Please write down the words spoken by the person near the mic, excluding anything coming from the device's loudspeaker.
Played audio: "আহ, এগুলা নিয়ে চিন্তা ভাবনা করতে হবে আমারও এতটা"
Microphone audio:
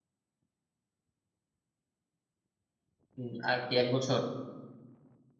উম, আর কি এক বছর

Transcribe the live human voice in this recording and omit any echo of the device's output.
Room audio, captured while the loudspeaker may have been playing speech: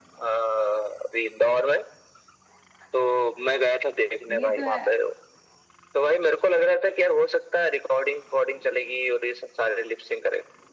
ये तो है

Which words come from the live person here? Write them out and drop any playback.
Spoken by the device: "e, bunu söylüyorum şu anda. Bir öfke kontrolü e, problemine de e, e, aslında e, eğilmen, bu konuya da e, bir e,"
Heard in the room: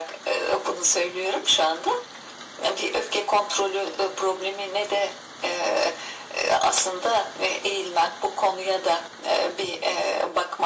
none

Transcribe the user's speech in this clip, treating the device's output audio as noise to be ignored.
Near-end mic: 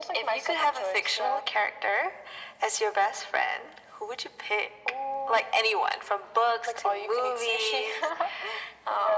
none

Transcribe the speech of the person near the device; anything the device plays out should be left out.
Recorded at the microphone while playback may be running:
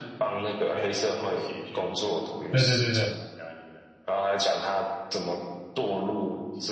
对对对对，

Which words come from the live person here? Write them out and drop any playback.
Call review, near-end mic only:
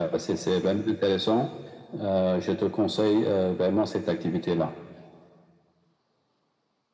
none

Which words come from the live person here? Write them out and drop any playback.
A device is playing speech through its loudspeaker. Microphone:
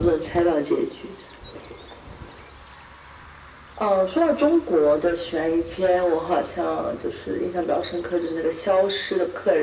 none

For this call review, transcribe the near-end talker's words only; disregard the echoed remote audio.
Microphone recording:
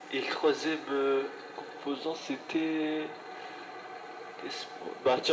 none

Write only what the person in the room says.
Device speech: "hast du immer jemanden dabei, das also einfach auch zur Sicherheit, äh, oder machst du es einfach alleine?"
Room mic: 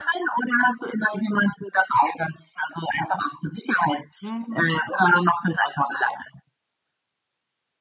Mhm.

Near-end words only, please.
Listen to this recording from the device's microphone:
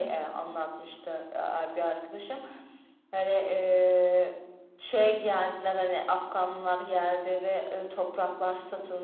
none

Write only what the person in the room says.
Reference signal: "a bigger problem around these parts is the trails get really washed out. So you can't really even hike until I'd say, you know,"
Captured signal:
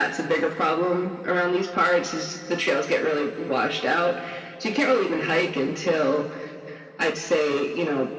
none

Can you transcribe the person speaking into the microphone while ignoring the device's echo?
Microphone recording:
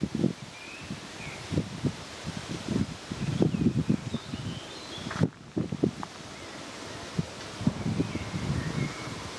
none

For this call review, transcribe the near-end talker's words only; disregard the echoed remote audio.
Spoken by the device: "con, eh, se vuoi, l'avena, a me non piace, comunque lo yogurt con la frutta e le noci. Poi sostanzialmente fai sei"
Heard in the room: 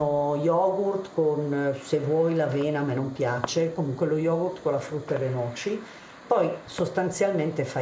none

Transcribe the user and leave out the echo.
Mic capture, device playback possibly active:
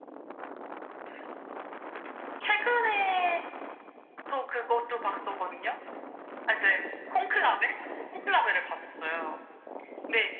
none

